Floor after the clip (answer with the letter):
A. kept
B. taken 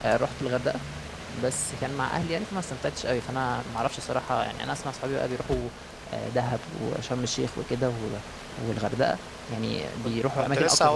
B